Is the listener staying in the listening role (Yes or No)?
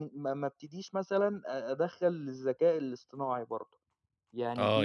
No